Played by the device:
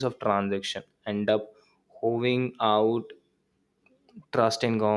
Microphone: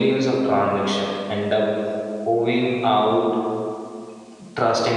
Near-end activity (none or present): none